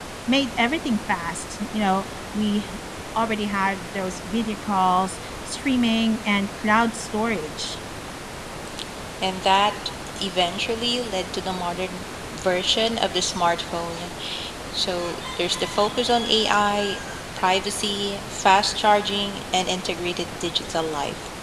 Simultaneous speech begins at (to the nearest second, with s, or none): none